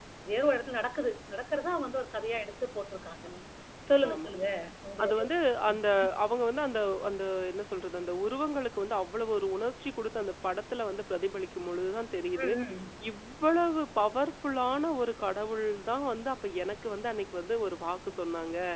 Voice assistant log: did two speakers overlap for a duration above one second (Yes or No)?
No